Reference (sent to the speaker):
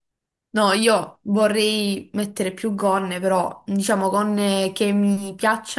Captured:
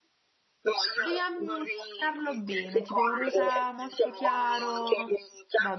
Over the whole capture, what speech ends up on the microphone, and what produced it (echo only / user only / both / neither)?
both